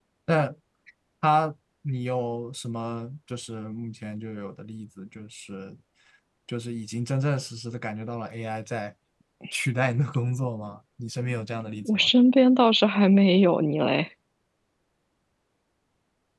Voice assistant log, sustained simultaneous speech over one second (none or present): none